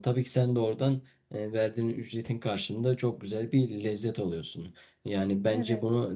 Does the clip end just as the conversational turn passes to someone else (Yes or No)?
No